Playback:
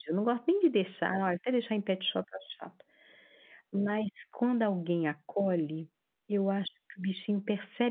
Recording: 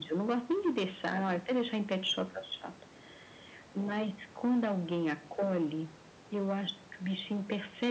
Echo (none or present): present